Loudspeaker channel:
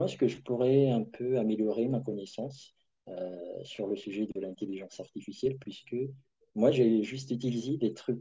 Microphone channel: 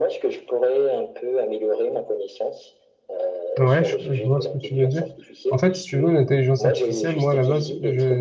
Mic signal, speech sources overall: both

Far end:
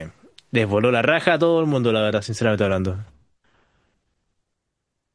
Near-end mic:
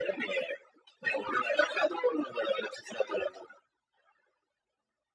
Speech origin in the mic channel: echo only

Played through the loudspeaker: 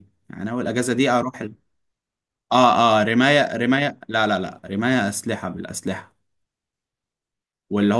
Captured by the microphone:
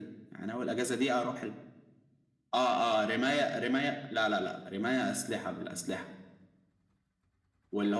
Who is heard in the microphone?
echo only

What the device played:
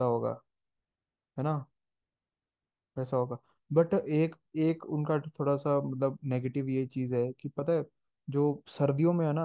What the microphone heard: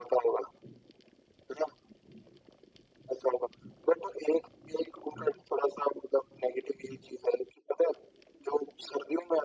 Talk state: echo only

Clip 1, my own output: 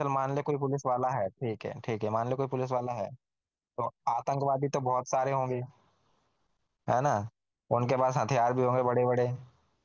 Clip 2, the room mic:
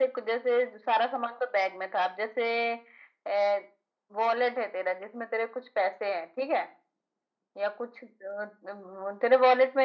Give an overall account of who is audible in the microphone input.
user only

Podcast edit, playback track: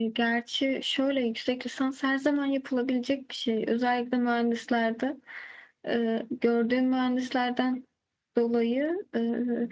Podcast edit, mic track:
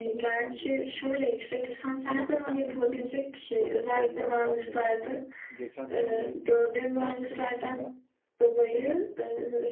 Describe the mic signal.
both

